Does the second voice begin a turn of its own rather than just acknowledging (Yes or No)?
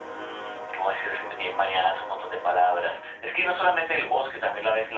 No